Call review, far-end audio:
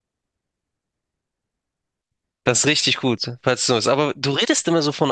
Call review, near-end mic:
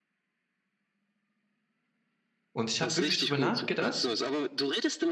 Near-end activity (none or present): present